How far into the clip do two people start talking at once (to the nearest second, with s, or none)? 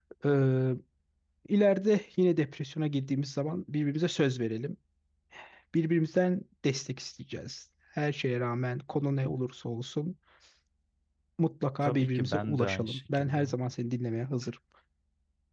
12 s